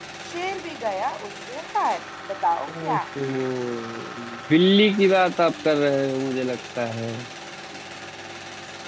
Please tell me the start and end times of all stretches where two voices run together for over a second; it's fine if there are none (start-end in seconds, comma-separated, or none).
none